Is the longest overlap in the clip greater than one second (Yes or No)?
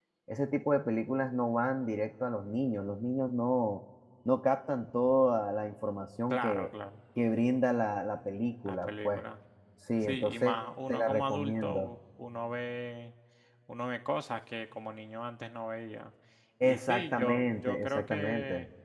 Yes